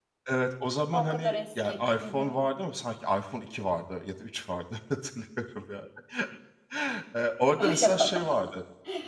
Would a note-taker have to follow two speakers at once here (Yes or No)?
Yes